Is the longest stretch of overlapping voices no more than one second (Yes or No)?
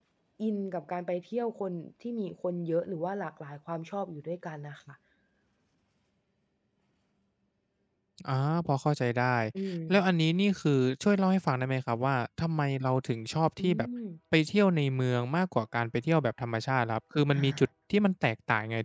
Yes